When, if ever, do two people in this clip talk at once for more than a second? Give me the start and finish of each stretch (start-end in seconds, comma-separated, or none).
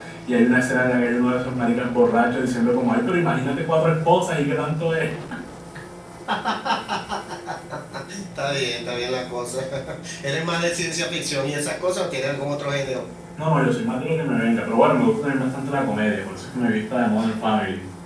none